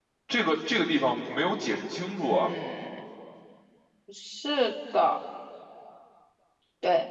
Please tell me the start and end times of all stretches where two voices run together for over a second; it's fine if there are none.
none

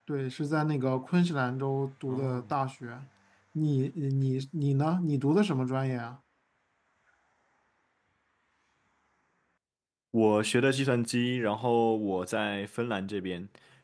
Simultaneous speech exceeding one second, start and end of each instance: none

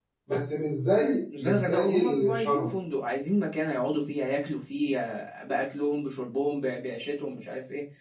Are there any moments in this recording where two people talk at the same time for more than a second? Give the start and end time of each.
1.4-2.8

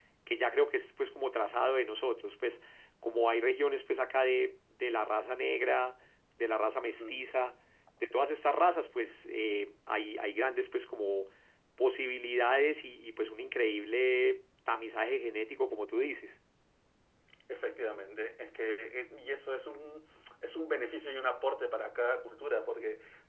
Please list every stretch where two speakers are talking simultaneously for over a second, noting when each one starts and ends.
none

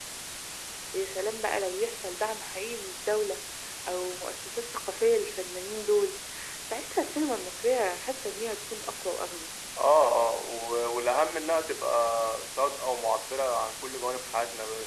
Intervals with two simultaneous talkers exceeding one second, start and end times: none

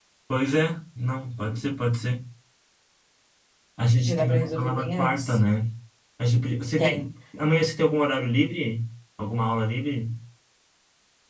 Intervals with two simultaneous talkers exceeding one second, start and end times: 4.0-5.4

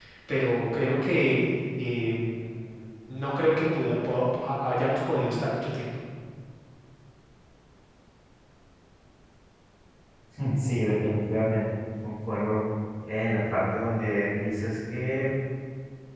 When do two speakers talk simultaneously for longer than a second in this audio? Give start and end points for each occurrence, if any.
none

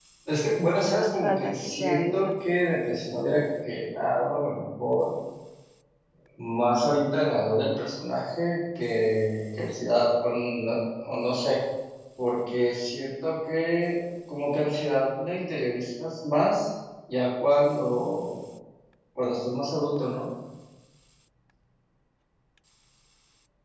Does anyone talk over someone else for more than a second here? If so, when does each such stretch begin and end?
0.8-2.3

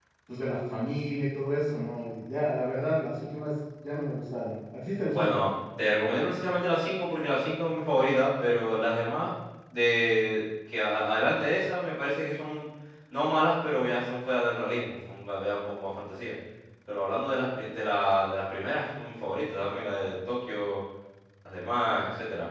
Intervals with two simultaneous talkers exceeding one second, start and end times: none

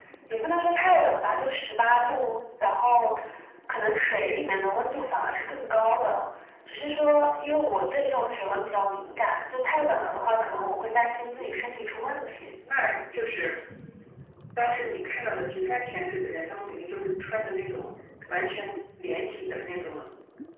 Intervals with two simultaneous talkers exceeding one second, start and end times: none

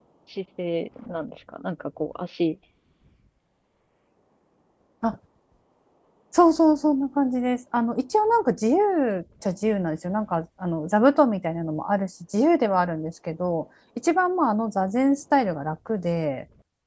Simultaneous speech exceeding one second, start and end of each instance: none

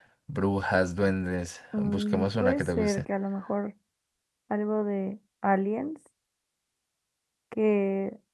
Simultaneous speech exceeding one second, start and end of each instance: 1.8-3.0

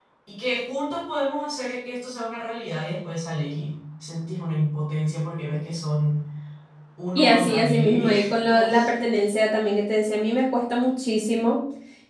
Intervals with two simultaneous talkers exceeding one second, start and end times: 7.2-8.6

